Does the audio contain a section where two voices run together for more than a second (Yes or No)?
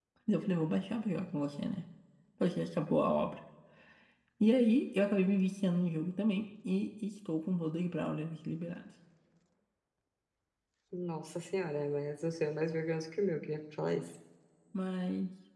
No